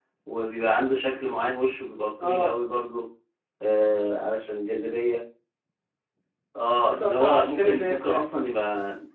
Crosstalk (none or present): present